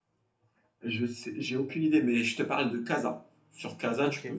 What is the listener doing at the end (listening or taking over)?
listening